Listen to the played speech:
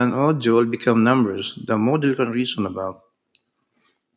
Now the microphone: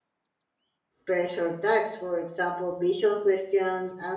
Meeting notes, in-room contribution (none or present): present